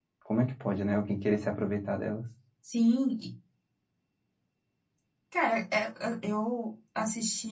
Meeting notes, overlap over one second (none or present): none